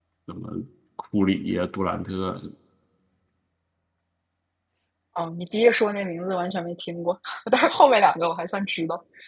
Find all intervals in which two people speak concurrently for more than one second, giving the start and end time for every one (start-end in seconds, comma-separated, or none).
none